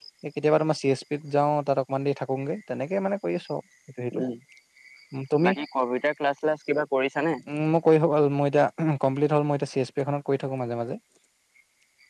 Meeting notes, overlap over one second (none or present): none